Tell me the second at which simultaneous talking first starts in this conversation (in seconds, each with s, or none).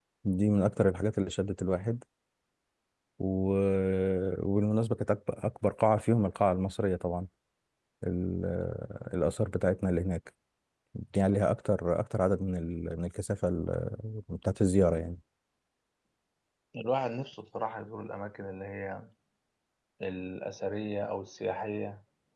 none